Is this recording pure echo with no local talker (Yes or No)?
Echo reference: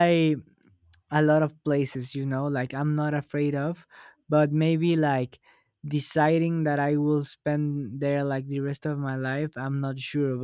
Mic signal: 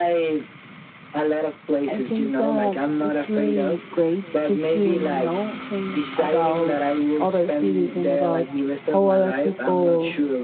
No